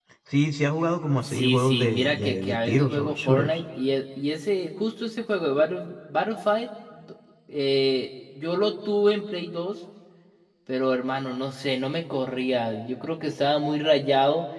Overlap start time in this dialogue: 1.2 s

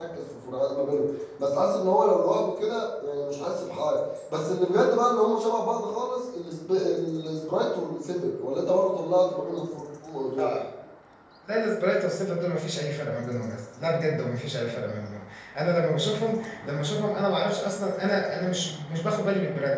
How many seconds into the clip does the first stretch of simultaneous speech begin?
none

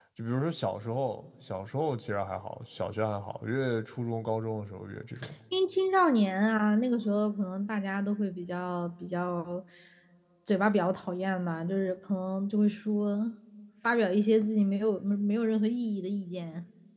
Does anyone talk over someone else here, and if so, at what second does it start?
none

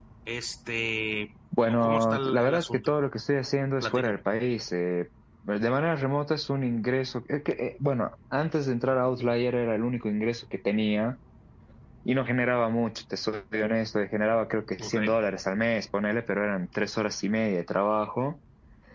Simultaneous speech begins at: 1.7 s

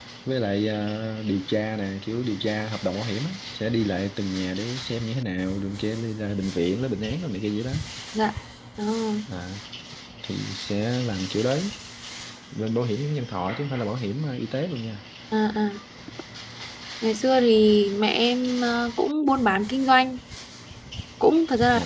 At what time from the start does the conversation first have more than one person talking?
none

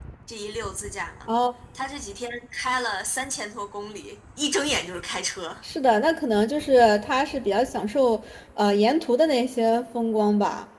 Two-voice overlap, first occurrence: none

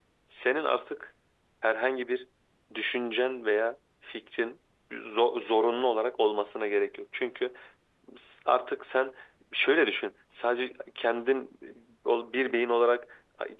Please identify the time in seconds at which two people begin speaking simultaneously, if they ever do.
none

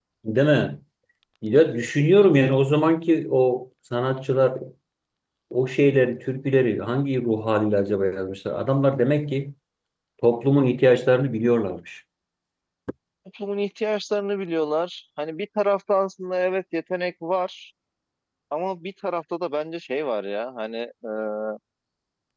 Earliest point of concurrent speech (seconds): none

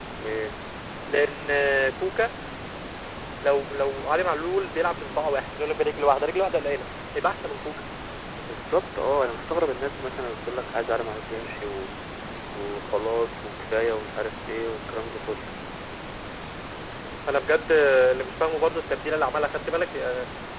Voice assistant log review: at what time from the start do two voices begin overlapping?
none

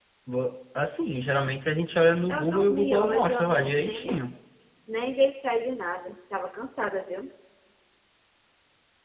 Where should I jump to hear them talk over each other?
2.3 s

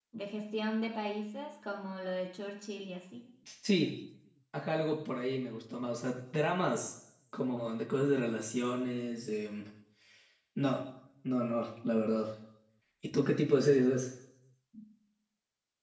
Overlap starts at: none

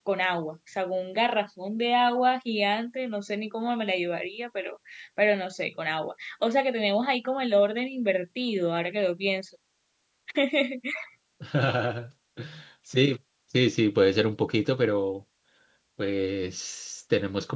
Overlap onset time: none

